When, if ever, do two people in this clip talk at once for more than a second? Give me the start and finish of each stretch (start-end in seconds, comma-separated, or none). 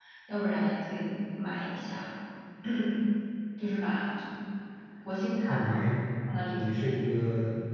none